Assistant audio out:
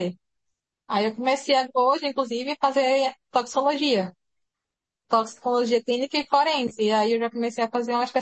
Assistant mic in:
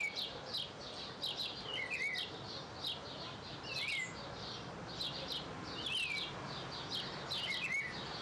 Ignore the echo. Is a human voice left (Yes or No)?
No